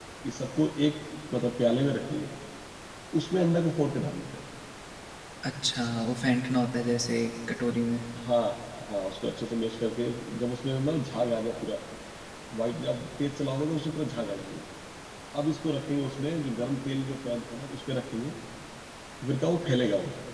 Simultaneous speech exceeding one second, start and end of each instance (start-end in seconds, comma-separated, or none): none